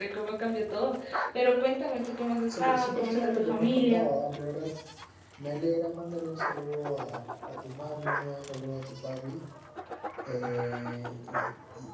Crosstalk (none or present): present